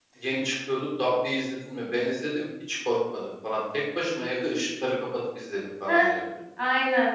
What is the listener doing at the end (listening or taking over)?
taking over